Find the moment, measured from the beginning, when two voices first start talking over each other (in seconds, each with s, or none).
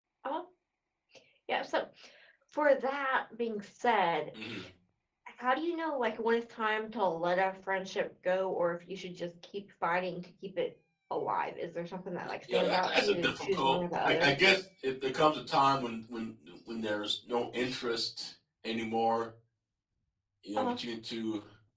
12.5 s